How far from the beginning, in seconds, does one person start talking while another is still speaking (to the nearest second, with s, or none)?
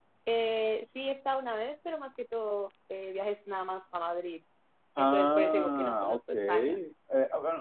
5 s